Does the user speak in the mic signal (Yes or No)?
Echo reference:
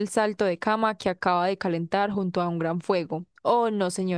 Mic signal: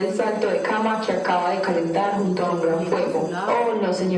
Yes